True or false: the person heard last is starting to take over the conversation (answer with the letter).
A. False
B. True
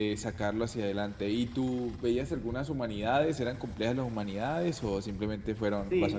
B